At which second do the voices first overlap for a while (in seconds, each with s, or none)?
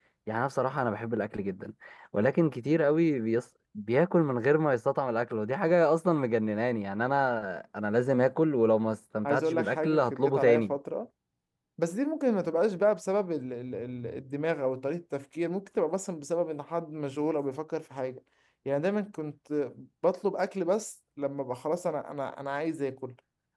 9.2 s